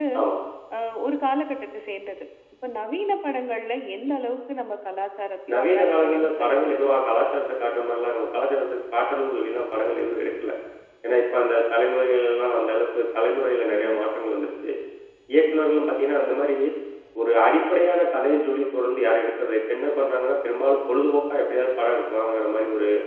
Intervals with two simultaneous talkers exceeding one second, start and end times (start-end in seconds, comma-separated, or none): 5.5-7.0